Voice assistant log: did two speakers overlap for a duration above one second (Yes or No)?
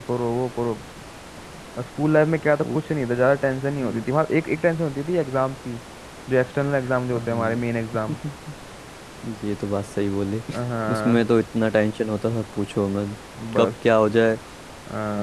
No